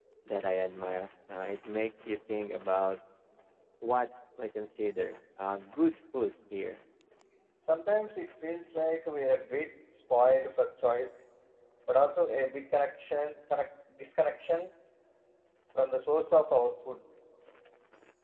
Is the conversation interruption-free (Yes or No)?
Yes